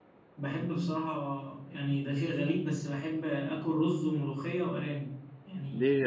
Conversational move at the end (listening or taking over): taking over